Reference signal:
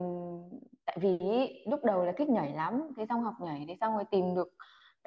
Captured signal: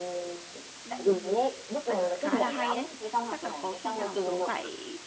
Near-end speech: present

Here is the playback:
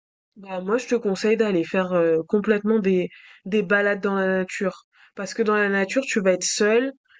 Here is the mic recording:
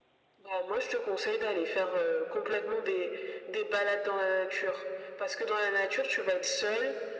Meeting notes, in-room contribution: none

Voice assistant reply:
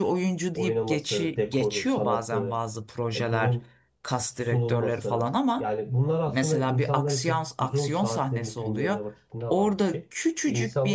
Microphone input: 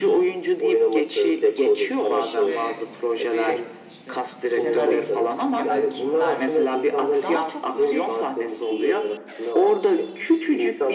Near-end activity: present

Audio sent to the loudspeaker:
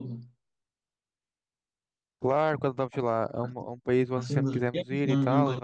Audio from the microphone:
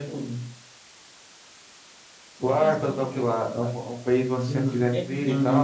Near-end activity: present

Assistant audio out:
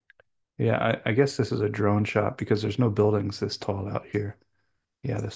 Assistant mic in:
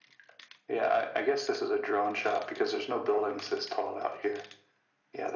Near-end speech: none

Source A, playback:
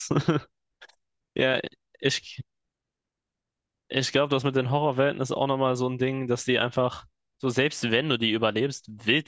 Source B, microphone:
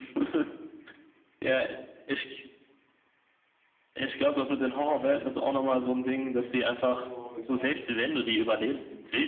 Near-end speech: present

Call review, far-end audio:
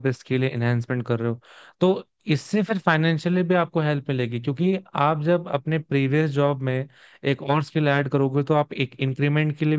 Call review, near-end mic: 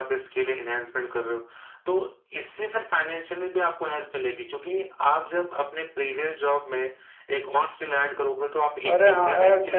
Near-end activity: present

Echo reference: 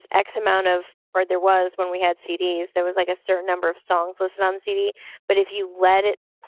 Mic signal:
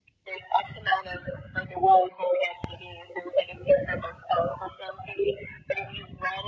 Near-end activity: none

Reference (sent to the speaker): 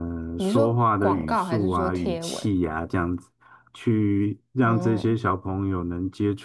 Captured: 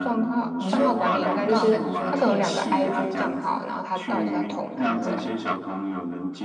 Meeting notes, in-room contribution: present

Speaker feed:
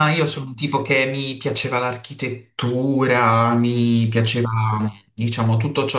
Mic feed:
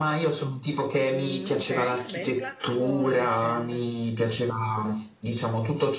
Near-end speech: present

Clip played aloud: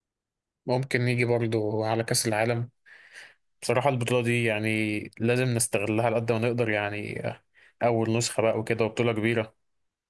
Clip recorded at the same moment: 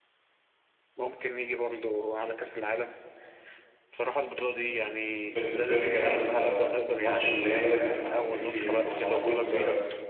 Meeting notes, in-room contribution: present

